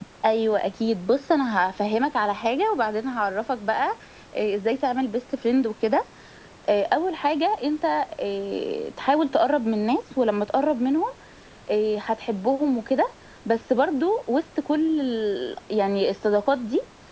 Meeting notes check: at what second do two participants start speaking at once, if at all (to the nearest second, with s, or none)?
none